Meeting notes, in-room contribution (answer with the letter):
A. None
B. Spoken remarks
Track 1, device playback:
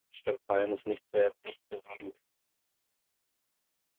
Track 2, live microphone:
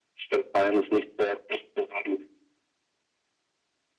A